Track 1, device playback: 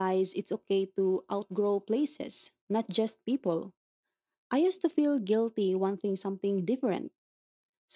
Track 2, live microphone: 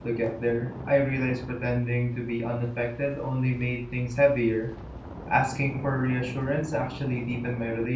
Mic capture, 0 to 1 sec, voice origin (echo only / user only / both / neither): user only